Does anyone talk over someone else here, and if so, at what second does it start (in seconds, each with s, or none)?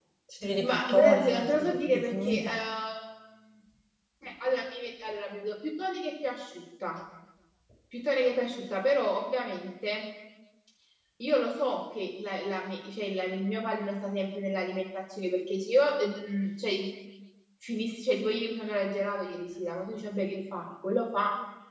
0.6 s